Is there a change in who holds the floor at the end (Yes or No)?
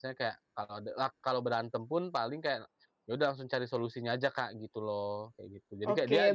Yes